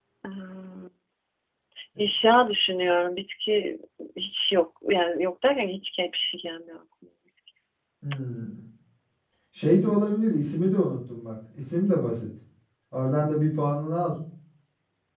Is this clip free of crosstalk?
Yes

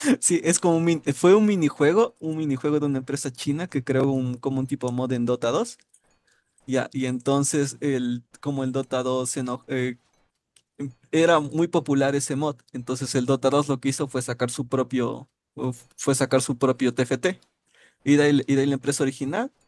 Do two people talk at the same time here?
No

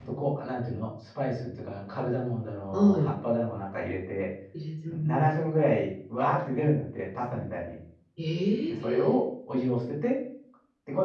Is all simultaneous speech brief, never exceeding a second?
Yes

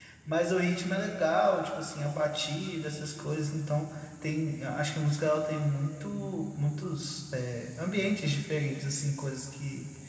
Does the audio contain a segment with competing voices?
No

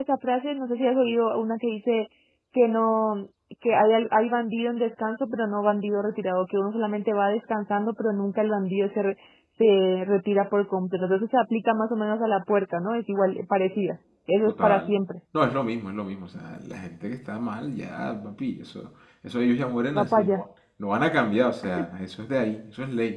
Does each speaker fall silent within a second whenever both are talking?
Yes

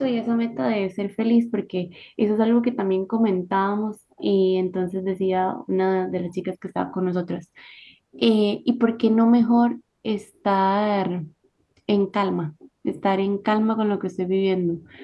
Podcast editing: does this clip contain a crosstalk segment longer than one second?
No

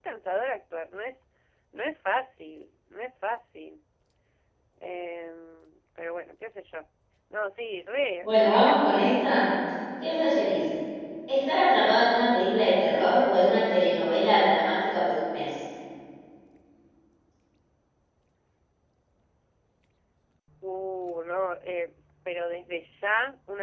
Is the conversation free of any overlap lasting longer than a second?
No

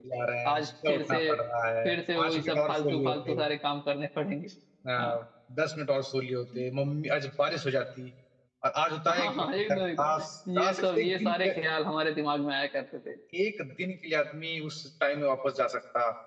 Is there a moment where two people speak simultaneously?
Yes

